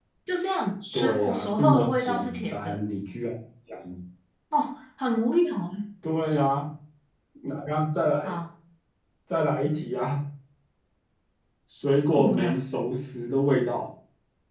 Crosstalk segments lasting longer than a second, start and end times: 0.9-2.8

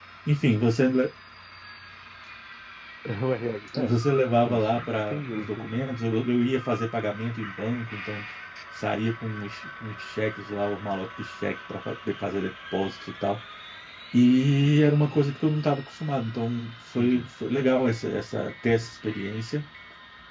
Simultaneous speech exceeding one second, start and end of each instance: 4.5-5.8

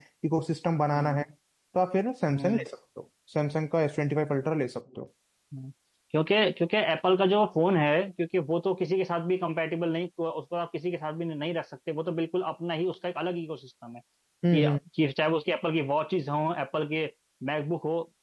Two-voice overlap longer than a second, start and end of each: none

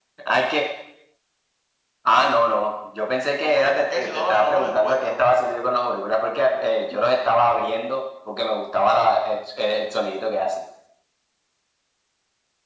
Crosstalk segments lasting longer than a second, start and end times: 3.4-5.2

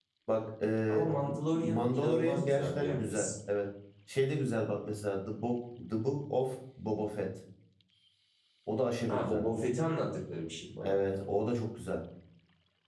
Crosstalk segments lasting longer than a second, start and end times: 1.5-3.3

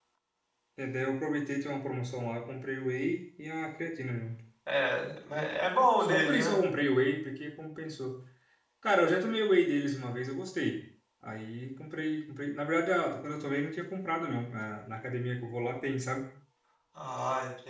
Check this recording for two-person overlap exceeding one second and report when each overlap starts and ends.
none

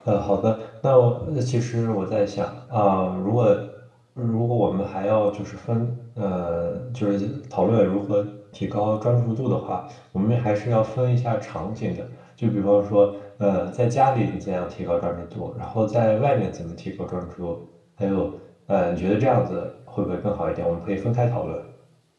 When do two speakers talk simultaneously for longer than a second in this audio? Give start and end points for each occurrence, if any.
none

